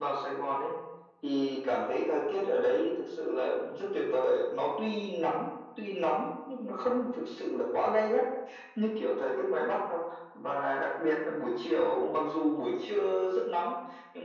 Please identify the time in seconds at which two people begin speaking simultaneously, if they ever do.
none

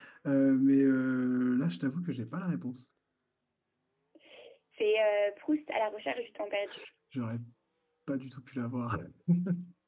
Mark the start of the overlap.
none

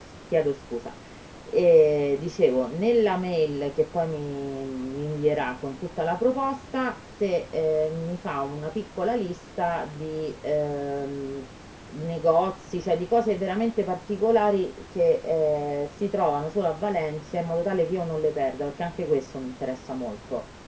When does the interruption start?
none

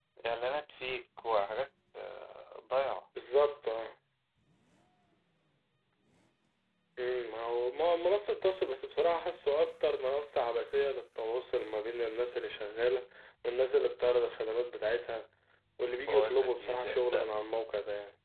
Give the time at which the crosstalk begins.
16 s

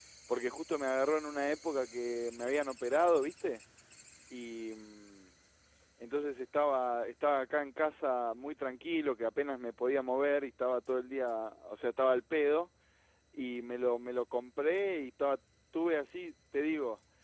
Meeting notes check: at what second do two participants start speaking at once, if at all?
none

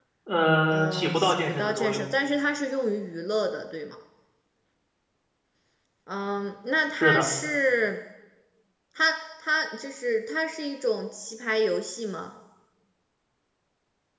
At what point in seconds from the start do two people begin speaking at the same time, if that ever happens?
1 s

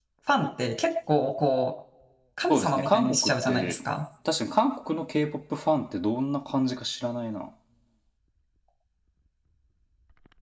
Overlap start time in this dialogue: 2 s

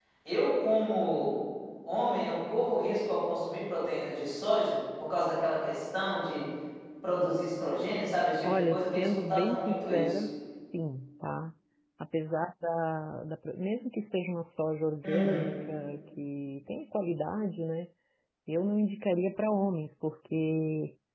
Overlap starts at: 8 s

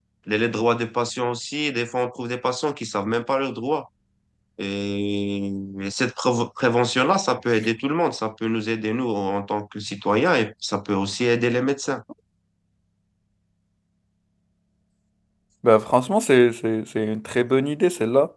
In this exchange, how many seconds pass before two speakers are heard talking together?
none

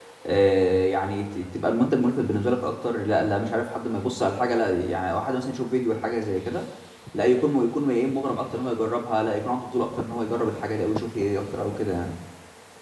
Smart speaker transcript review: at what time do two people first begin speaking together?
none

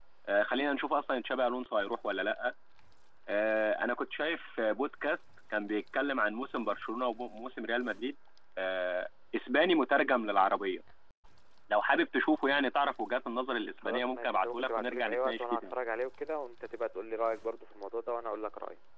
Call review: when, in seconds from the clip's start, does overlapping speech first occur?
14 s

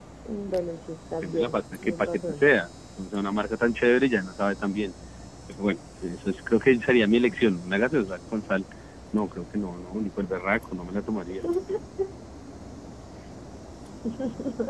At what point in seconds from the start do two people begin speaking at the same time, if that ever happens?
1 s

